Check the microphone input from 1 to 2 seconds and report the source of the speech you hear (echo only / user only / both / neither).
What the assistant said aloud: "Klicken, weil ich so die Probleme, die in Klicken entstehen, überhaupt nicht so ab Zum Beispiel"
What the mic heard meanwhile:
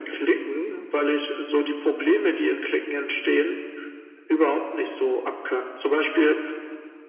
echo only